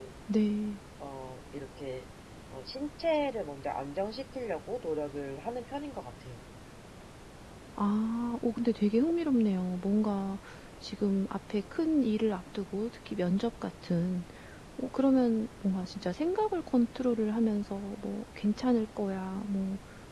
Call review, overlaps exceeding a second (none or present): none